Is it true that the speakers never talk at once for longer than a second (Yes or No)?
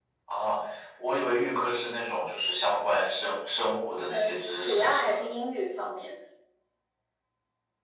No